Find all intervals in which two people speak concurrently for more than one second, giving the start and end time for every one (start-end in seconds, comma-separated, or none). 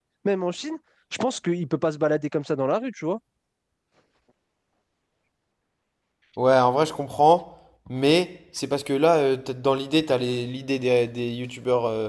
none